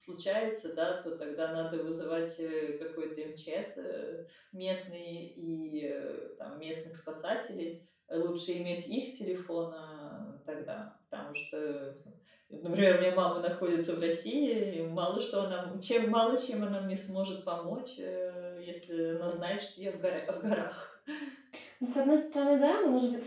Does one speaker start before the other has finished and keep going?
No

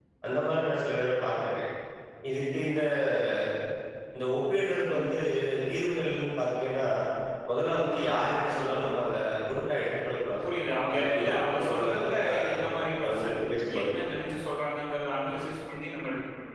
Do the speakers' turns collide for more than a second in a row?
Yes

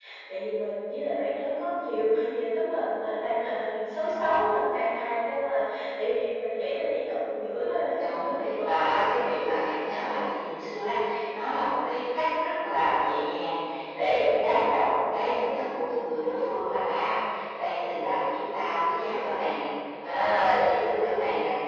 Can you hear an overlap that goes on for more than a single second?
Yes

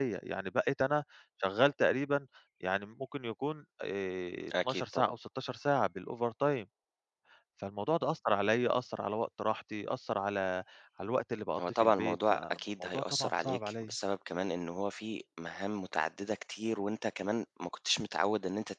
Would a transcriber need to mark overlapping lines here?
Yes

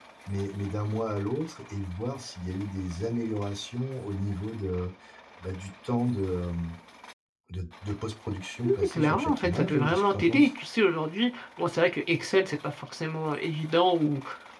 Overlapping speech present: Yes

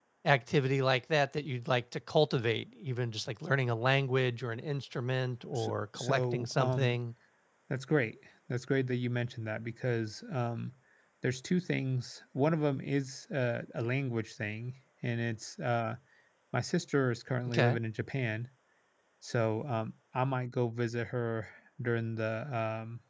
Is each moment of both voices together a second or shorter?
No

